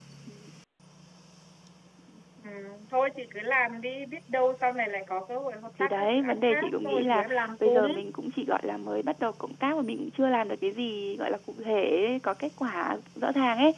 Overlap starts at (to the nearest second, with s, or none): 6 s